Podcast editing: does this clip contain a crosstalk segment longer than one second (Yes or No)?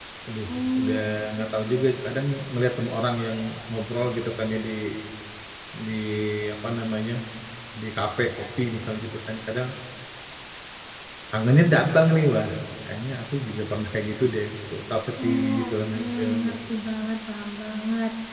Yes